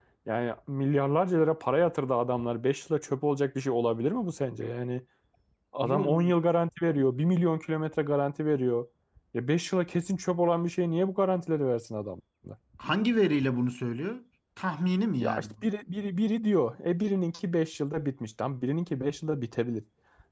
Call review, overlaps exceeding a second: none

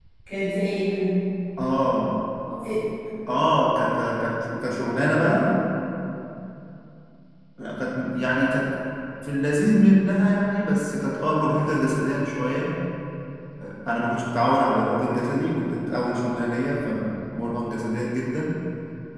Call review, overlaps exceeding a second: none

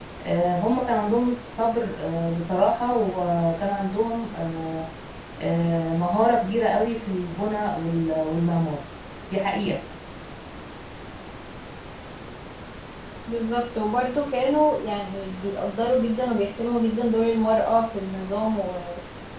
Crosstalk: none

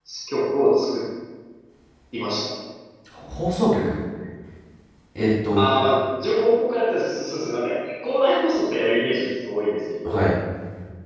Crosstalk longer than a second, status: none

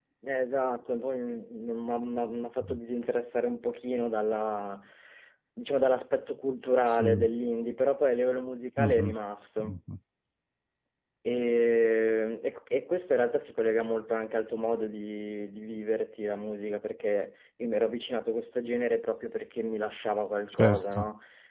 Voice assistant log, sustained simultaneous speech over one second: none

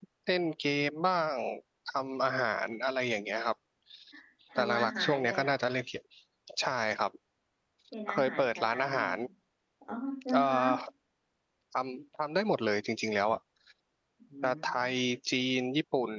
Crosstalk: present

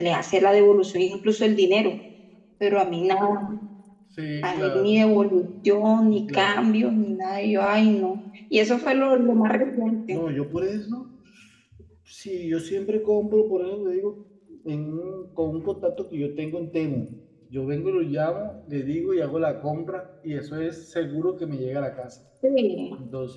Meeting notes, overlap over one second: none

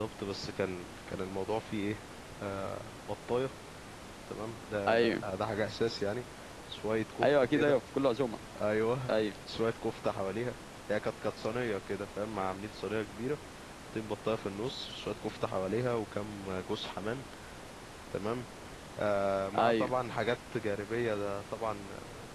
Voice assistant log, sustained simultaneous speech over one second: none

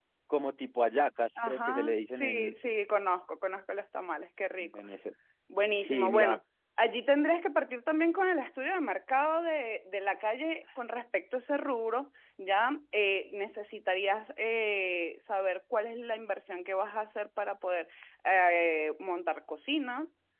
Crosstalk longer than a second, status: present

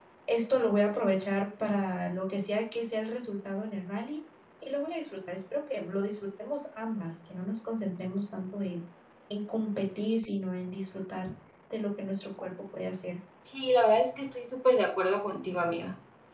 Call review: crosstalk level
none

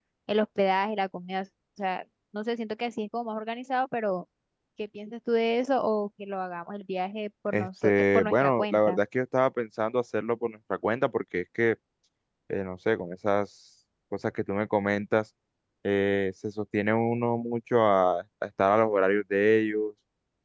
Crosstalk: present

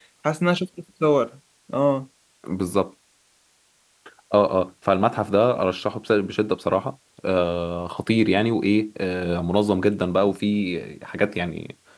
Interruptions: none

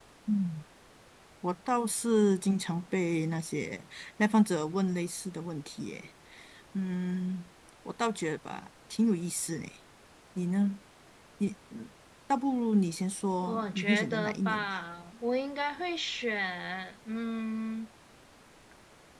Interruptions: present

